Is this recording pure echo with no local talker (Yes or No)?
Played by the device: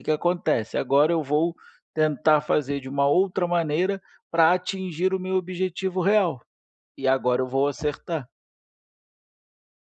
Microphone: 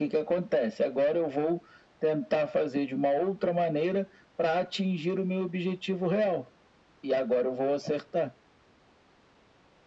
Yes